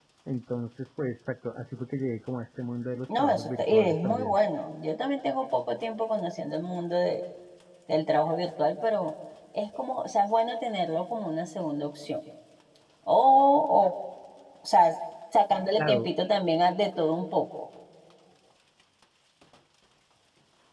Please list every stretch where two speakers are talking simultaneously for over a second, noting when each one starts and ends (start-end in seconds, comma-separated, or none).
3.1-4.4